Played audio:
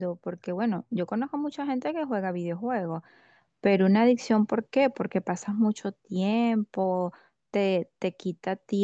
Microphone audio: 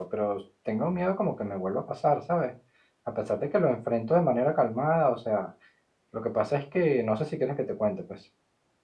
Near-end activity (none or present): present